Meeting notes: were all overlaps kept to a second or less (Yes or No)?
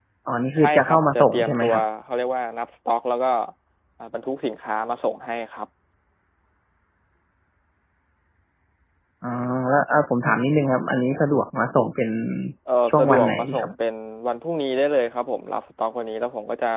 No